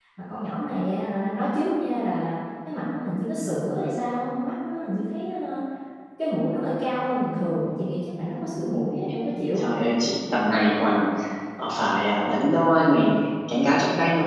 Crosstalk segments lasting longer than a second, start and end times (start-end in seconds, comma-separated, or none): none